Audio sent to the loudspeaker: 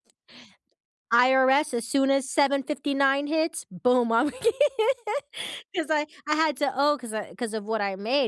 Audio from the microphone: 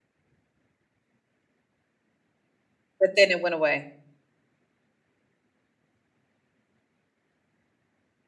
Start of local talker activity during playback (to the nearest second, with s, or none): 3 s